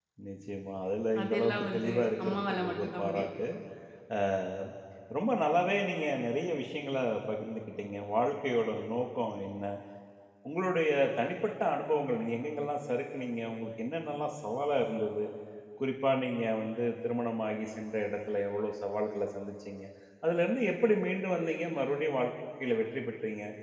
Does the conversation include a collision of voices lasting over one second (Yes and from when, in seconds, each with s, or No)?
Yes, from 1.2 s